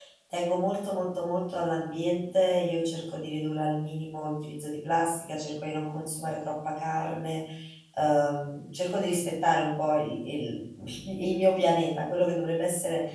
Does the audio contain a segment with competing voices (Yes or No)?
No